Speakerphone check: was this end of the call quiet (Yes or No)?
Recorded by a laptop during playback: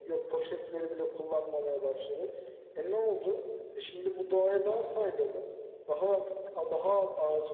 Yes